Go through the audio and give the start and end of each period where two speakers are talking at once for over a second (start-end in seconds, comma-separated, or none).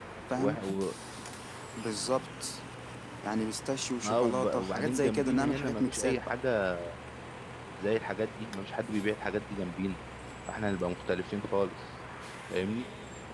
4.0-6.3